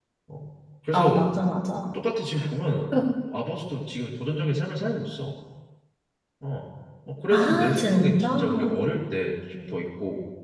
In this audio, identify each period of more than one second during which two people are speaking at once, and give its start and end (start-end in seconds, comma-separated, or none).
7.3-8.7